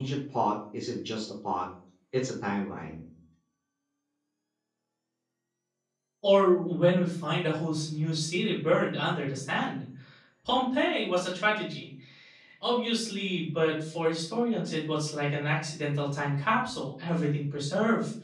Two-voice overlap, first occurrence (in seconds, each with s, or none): none